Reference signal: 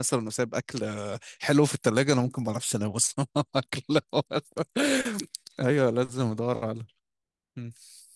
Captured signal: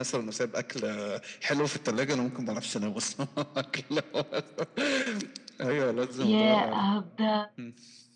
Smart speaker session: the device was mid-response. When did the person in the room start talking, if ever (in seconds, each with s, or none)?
6.2 s